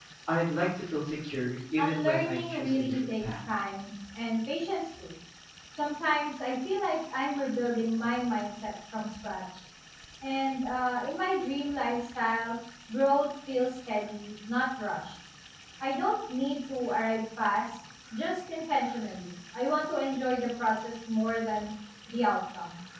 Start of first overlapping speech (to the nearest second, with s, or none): 2 s